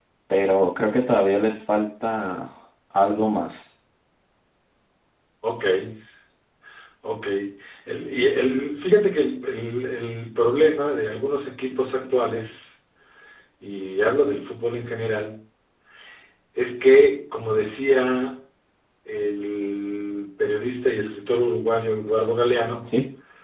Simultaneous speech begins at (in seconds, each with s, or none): none